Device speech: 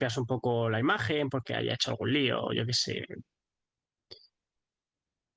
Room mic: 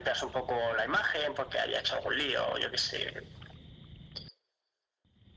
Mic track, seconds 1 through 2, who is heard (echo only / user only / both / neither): echo only